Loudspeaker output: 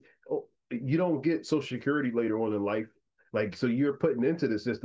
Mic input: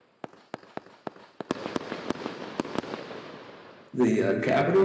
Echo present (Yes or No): No